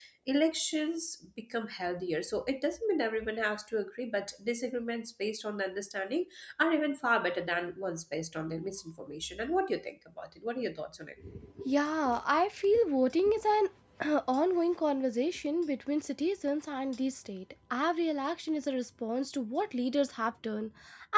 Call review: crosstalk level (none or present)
none